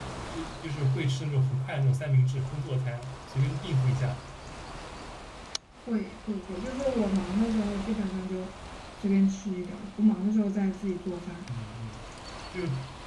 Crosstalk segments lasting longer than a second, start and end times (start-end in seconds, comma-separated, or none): none